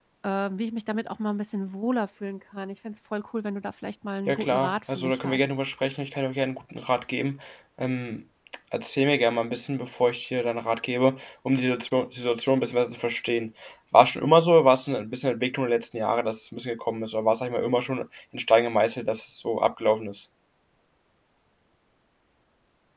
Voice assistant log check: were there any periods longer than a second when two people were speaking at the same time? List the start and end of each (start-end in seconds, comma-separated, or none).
4.3-5.5